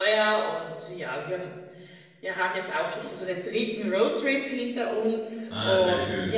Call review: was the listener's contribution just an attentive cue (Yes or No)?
No